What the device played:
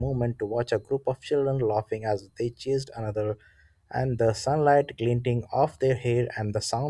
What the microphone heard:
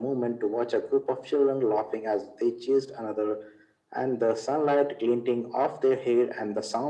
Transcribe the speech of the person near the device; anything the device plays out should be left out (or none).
none